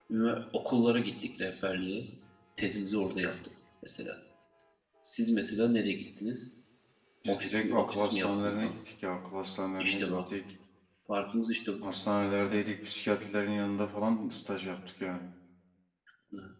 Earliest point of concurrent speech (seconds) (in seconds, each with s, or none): 7.3 s